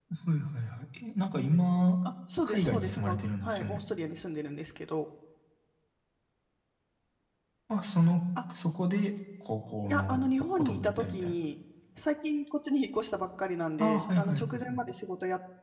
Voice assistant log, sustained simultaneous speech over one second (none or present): present